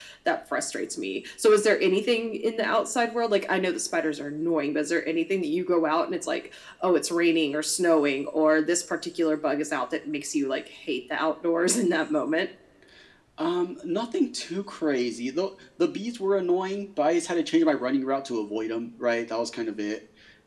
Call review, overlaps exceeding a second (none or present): none